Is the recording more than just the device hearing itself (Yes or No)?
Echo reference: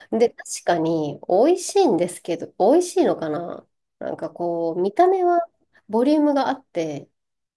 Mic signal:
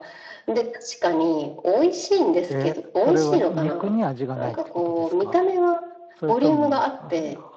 Yes